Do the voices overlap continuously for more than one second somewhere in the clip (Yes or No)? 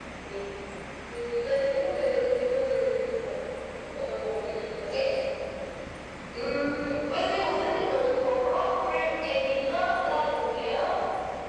No